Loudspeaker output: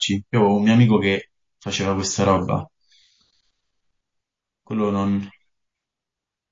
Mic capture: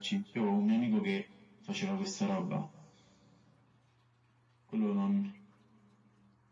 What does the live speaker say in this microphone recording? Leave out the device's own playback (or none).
none